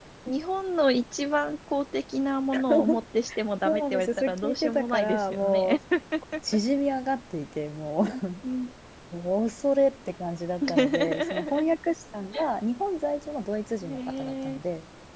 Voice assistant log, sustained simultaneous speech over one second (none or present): present